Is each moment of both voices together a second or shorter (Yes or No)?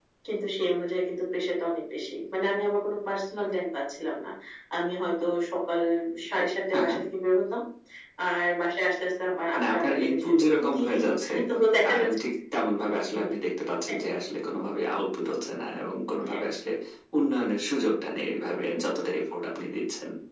No